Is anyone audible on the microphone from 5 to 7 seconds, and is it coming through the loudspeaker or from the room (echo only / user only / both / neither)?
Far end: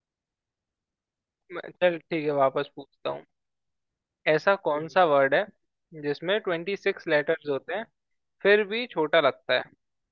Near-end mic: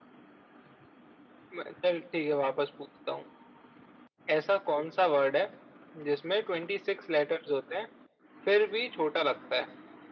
echo only